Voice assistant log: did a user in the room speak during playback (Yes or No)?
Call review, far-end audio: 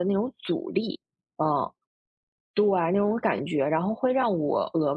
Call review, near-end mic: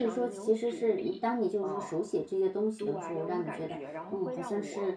Yes